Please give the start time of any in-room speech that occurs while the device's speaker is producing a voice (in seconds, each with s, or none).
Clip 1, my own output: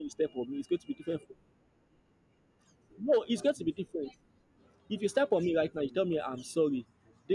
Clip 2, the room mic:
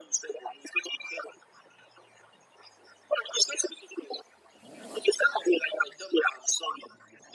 none